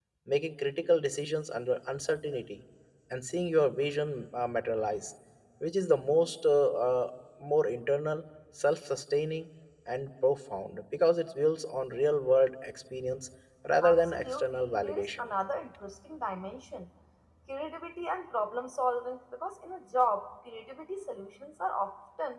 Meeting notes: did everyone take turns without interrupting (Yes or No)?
No